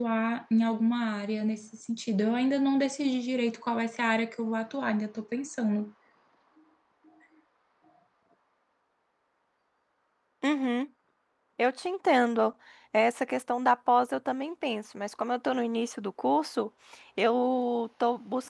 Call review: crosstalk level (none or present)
none